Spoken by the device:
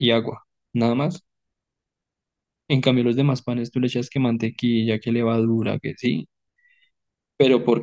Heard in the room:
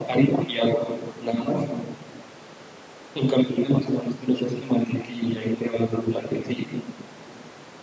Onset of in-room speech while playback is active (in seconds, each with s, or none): none